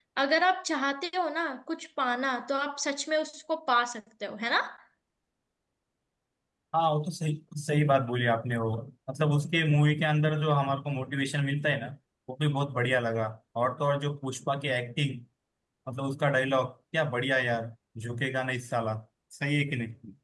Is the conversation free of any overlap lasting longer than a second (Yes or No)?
Yes